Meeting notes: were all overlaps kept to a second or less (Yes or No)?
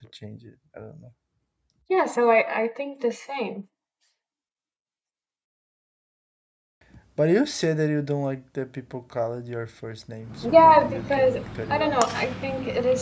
No